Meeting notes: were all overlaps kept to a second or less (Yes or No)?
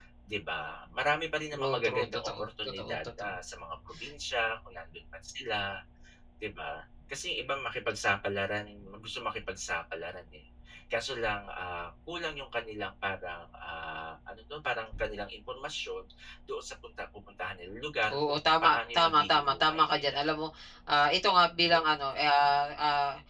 No